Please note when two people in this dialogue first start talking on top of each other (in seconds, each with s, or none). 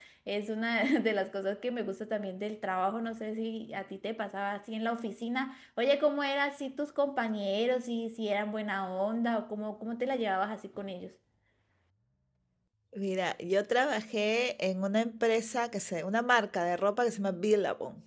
none